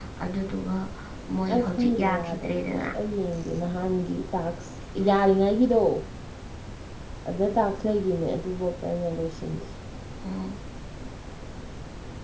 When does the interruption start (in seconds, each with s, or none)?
1.5 s